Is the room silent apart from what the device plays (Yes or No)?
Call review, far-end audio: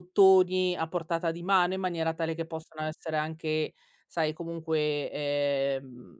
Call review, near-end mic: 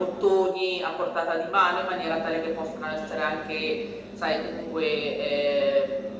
Yes